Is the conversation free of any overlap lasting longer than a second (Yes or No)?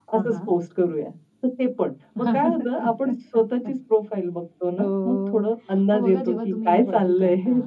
No